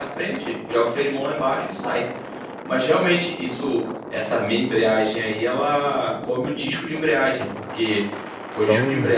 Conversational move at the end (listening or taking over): listening